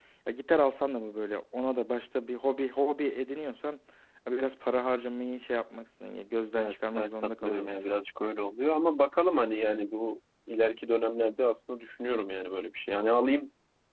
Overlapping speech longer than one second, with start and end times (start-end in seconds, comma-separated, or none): 6.5-7.9